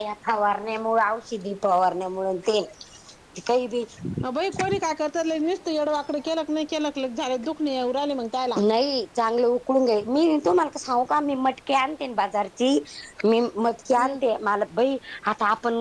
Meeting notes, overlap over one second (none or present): none